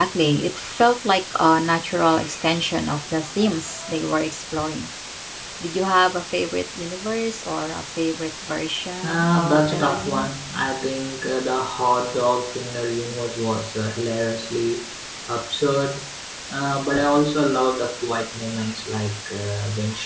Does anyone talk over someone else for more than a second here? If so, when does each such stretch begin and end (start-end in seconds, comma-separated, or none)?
9.0-10.3